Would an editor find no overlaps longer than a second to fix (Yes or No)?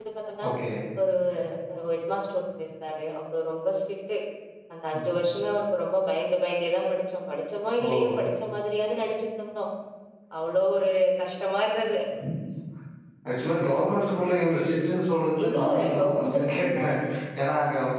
No